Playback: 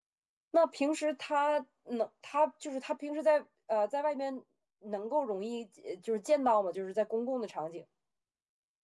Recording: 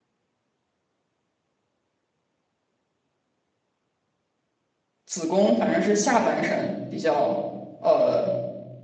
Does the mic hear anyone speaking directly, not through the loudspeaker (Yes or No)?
Yes